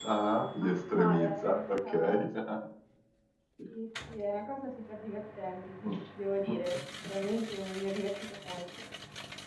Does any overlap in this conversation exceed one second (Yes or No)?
Yes